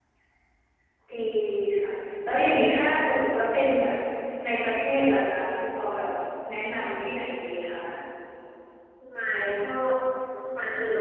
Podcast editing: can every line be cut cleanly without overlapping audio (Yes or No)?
Yes